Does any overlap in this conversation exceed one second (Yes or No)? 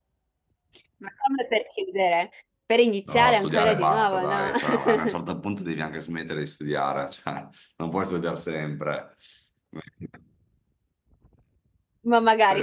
Yes